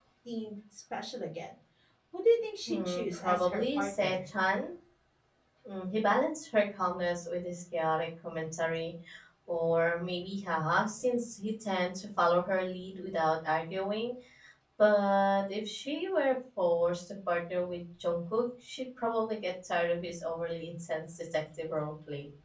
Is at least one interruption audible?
Yes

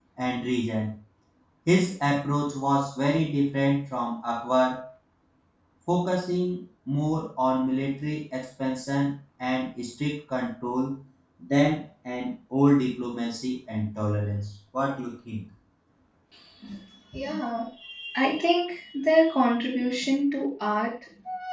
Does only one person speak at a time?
Yes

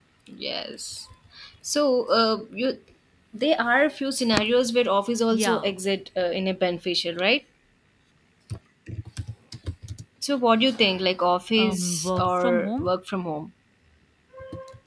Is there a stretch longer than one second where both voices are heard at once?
Yes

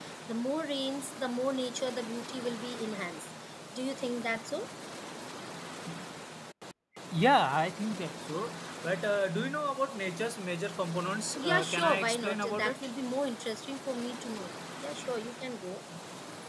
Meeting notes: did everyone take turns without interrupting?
No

